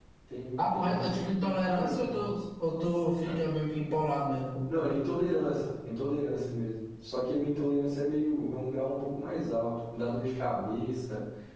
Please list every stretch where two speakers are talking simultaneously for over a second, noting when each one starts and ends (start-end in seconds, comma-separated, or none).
0.6-2.1